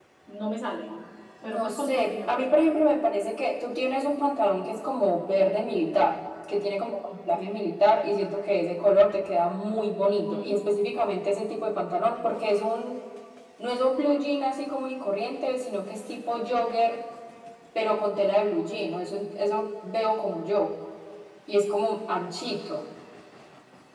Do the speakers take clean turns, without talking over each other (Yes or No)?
No